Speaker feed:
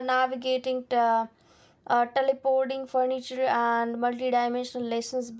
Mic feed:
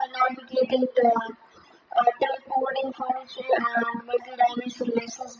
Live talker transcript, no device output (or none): none